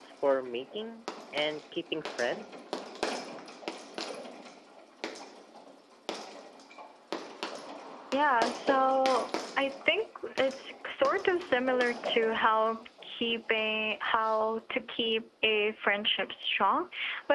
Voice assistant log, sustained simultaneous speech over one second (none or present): none